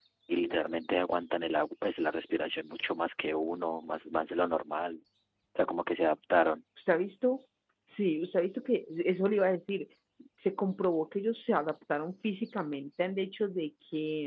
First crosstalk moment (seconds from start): none

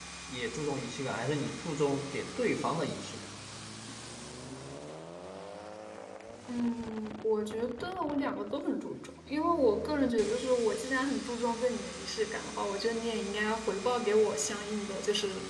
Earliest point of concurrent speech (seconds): none

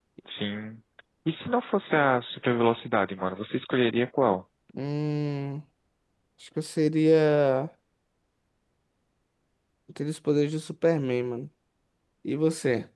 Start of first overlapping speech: none

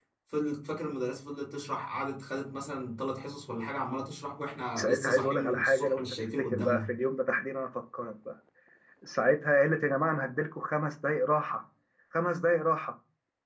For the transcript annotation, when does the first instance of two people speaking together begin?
4.8 s

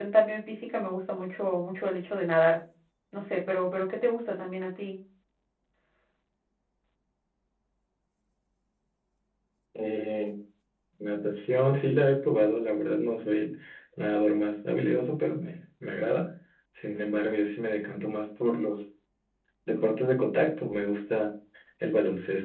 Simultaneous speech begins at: none

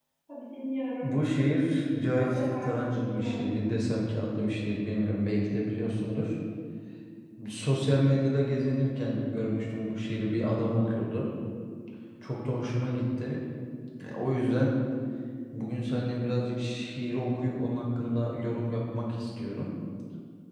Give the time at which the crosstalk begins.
2.0 s

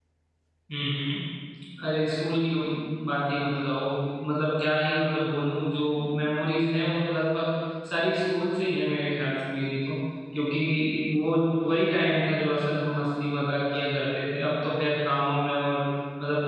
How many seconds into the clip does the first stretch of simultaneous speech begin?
none

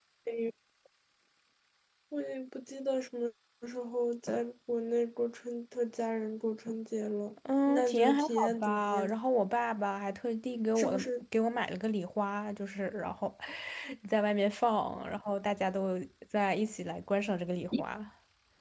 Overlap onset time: 7.7 s

